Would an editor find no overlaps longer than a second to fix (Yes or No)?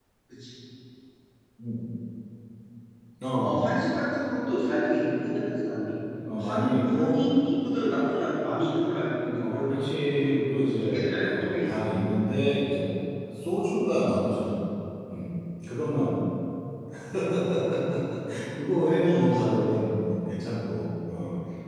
No